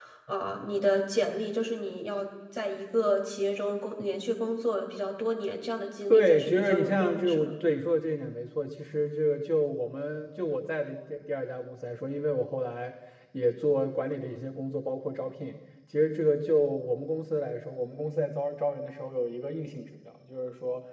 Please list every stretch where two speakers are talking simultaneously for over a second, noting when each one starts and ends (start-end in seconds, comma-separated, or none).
6.1-7.5